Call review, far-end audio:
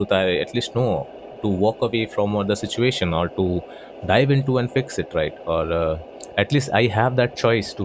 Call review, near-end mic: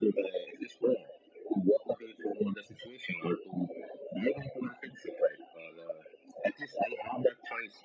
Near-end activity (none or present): none